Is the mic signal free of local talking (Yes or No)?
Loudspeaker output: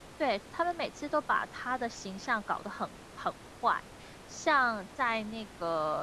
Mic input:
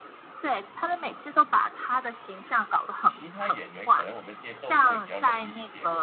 No